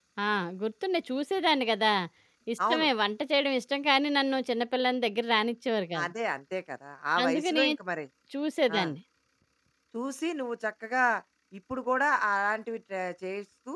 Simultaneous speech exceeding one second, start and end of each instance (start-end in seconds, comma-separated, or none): none